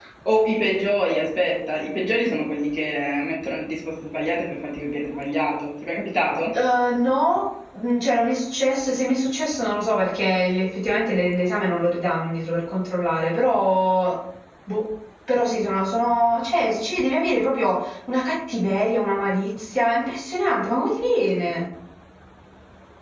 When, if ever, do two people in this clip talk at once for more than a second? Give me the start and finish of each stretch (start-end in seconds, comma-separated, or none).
none